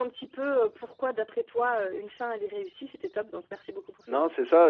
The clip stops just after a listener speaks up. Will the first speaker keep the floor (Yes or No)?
No